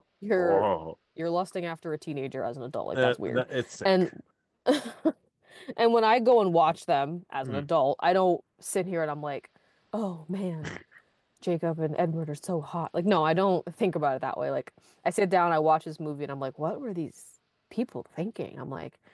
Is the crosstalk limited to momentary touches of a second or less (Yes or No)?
Yes